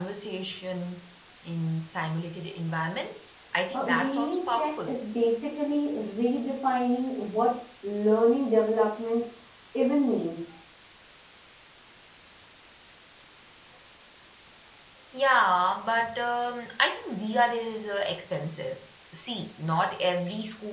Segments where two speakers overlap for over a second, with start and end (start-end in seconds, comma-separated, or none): 3.7-4.9